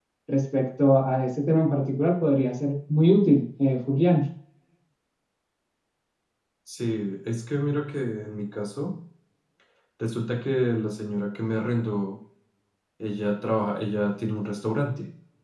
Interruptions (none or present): none